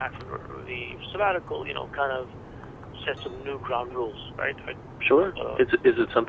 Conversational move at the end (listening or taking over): taking over